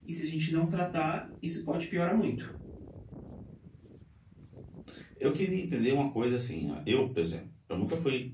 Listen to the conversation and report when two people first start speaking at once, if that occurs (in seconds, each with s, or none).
none